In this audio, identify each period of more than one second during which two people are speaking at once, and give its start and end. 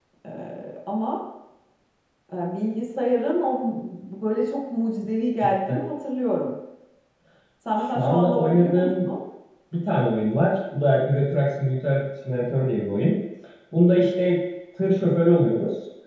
7.7-8.9

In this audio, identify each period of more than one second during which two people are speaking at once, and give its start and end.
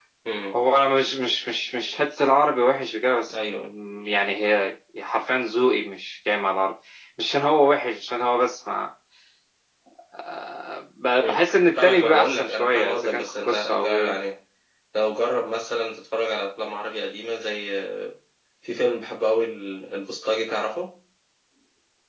11.8-14.2

